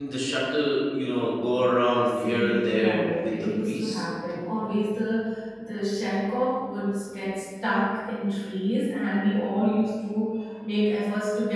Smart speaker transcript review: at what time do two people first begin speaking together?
2 s

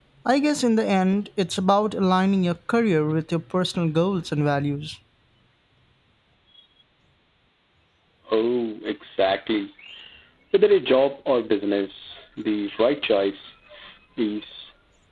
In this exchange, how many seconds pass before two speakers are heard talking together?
none

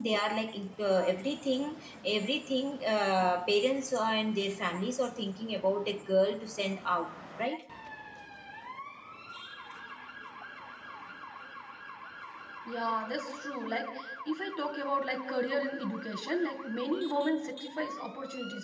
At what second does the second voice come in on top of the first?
none

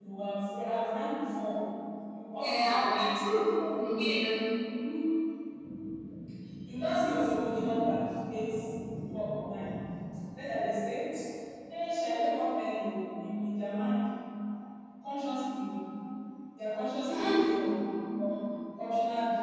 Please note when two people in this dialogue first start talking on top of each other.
2 s

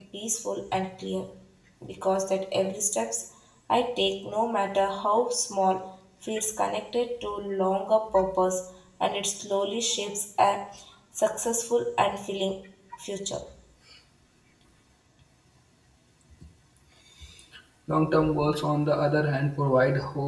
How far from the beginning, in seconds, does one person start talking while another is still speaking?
none

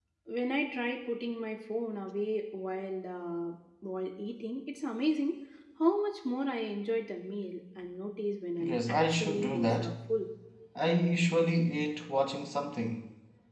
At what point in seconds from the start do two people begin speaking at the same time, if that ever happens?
9 s

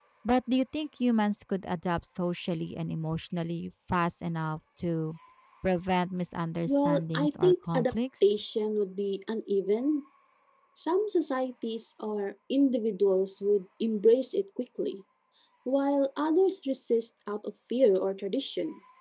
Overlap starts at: 7 s

